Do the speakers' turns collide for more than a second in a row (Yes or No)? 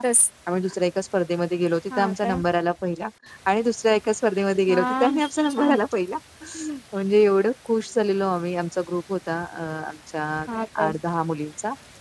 No